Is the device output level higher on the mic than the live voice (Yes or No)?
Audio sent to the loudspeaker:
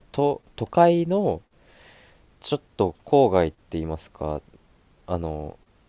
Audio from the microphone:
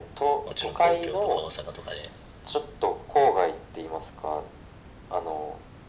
Yes